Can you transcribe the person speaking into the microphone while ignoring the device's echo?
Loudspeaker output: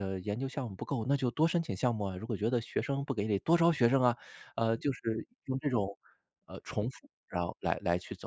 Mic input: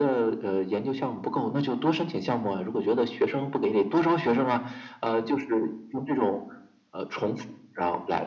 none

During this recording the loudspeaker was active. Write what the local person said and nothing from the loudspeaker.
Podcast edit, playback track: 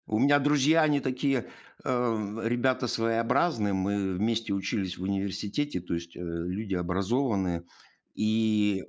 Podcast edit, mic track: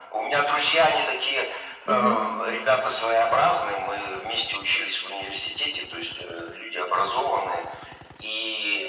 Мгм.

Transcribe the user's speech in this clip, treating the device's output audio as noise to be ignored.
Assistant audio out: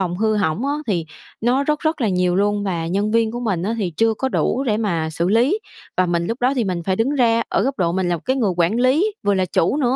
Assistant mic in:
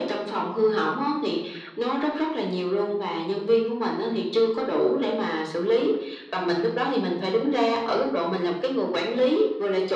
none

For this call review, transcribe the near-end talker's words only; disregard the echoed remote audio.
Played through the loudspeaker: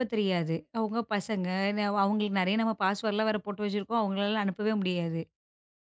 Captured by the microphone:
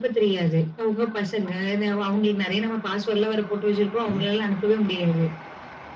சரி.

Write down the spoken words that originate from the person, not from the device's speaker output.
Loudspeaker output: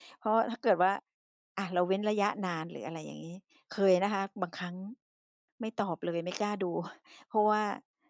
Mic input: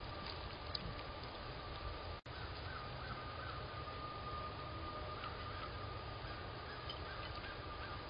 none

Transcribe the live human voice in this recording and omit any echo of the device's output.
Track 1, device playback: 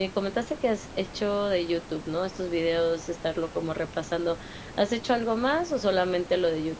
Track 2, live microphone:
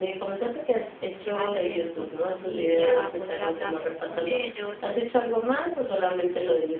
llevarme bien con su familia, poder hablar con ellos,

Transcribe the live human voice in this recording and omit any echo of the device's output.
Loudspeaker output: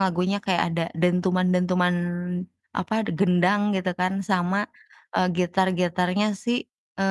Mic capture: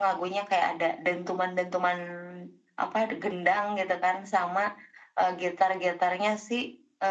none

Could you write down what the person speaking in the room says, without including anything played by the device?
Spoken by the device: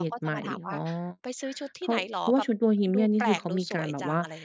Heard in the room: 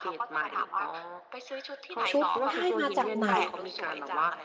"ชุดได้มาจากไหน?"

